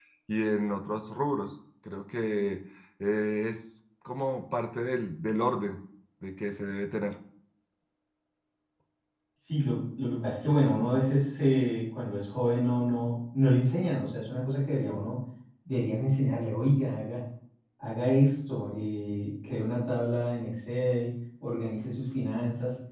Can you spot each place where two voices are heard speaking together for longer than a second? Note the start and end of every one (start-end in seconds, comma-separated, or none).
none